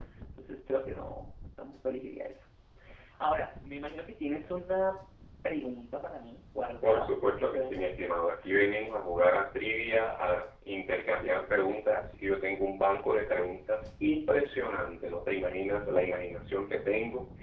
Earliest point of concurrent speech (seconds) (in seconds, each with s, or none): 6.8 s